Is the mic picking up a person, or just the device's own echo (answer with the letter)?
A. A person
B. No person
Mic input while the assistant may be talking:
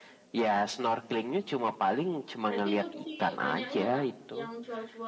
A